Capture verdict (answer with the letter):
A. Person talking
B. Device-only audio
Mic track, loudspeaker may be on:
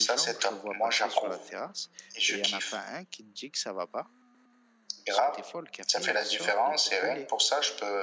A